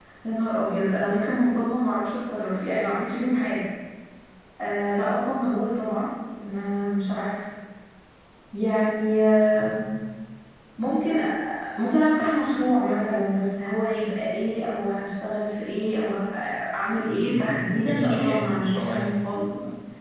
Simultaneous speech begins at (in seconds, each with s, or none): 17.2 s